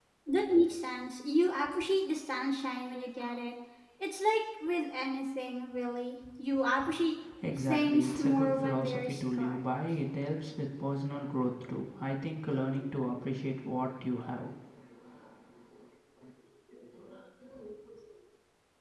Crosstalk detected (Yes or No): Yes